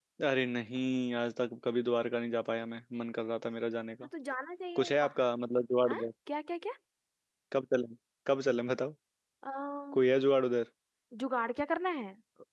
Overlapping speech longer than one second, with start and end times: none

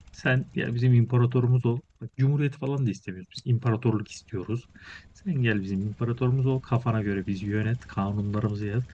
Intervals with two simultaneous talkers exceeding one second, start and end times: none

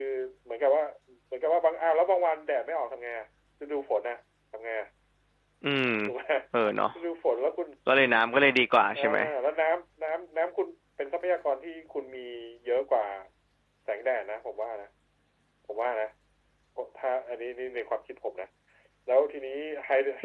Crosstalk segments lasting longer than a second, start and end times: none

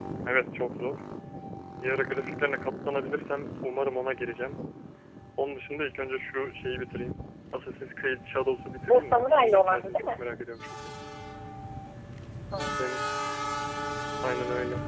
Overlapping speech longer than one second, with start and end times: 8.8-10.2

